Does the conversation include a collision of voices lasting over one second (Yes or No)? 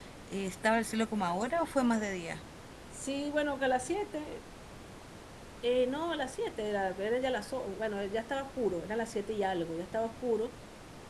No